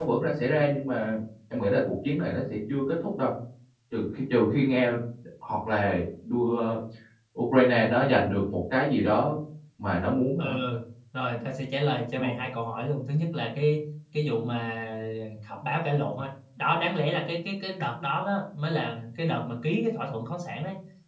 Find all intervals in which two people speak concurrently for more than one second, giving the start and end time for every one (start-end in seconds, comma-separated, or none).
none